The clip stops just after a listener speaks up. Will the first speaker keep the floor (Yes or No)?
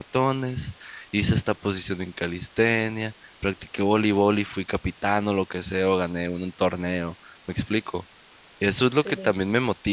Yes